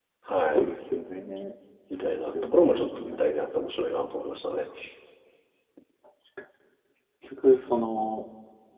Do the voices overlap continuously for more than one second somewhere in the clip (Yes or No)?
Yes